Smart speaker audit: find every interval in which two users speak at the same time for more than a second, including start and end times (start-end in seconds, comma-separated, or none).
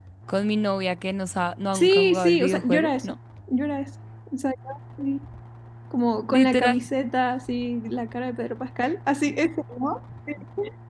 1.7-3.1